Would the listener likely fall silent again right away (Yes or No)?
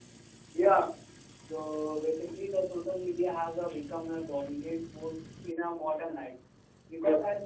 Yes